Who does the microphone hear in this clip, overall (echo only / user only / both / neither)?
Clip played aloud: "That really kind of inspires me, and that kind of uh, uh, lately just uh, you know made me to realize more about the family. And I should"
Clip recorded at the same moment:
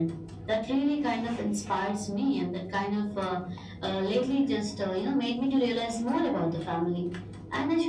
echo only